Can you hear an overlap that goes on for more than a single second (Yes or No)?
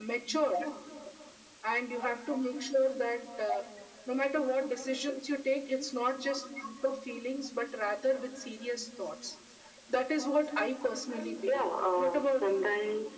Yes